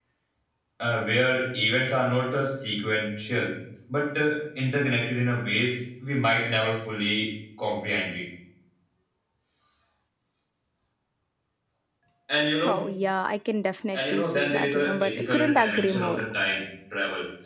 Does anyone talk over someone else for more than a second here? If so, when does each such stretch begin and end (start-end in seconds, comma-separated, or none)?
13.9-16.2